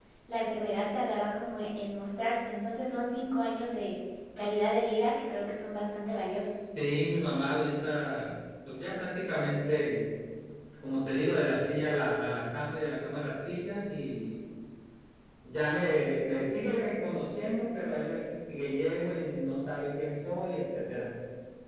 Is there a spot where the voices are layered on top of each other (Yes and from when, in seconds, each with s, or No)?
No